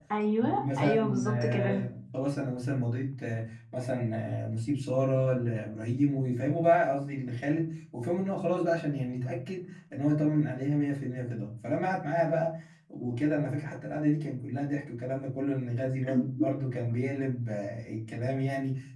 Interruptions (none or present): present